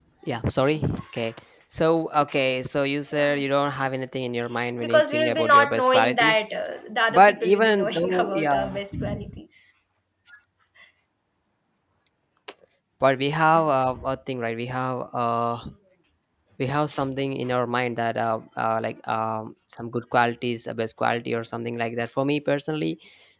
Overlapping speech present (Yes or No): Yes